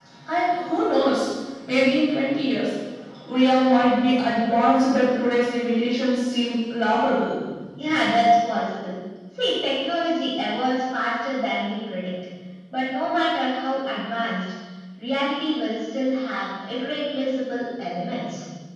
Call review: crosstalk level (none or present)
none